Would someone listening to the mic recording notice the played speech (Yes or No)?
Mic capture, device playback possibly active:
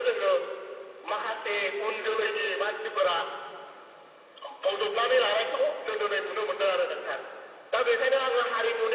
Yes